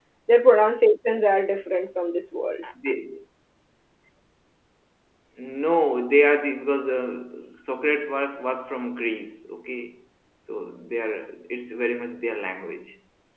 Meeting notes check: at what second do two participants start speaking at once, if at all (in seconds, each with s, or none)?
none